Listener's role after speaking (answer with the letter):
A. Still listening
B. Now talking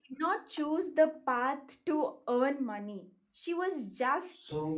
A